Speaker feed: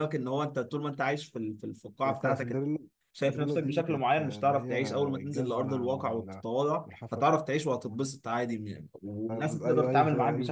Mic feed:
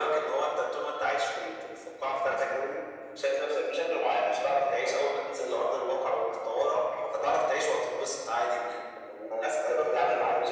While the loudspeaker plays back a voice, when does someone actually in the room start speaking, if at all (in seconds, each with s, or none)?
none